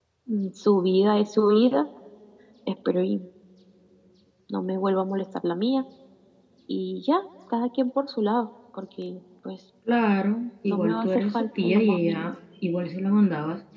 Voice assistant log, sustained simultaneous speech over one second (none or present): present